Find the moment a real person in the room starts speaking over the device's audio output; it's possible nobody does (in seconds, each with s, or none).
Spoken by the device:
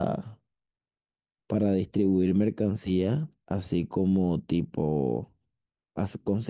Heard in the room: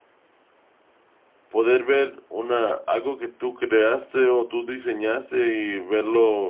1.5 s